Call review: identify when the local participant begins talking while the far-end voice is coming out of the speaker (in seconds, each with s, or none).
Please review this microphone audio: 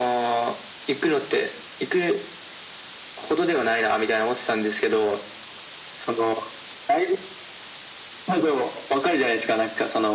none